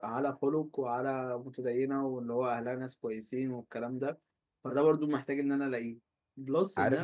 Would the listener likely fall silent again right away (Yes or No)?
No